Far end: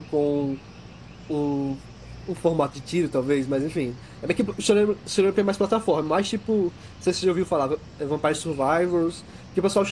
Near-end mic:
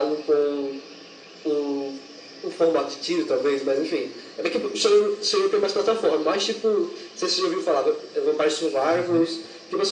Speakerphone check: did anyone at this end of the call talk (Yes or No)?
Yes